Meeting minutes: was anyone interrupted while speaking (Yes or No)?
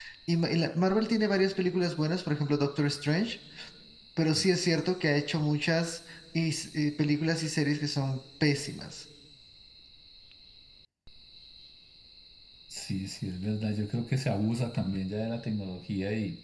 No